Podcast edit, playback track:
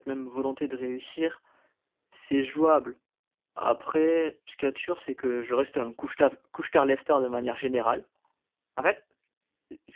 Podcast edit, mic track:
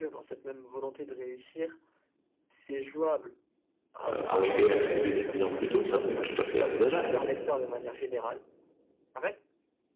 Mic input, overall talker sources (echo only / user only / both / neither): both